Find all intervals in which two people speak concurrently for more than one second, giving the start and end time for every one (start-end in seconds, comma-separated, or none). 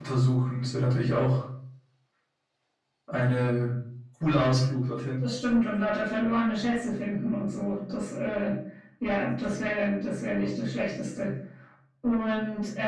none